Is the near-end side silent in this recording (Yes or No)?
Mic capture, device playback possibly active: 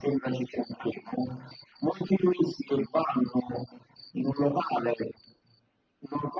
Yes